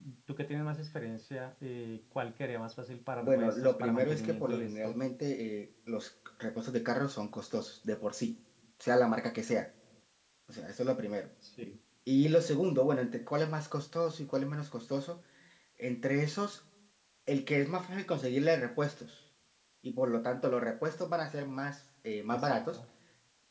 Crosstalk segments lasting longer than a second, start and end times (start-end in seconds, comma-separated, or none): 3.2-5.0